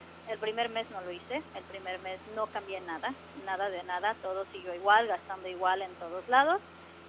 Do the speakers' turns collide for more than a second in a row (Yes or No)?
No